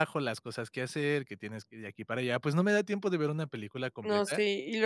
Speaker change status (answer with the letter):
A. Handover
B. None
A